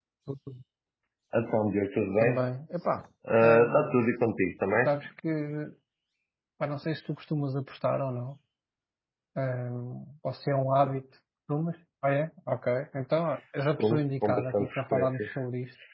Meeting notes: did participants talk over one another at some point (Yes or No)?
Yes